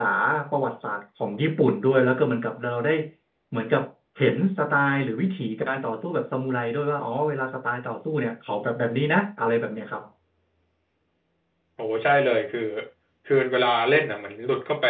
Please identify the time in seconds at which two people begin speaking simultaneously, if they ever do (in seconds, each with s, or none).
none